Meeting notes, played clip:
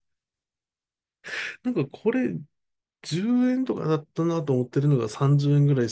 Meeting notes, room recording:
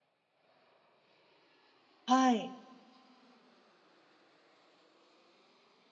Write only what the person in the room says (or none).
あ、はい。